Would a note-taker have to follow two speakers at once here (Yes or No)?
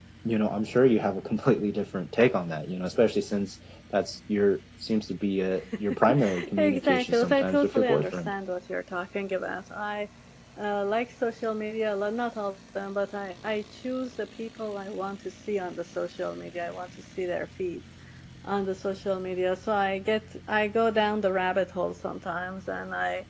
Yes